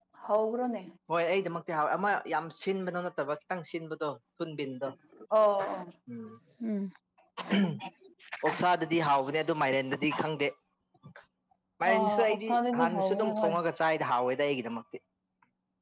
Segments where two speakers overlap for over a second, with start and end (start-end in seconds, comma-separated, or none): 11.9-13.5